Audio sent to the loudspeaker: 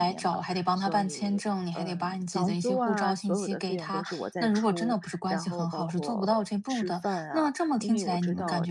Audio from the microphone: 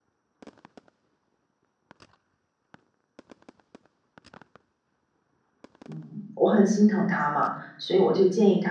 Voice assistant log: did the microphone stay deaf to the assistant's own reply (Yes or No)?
Yes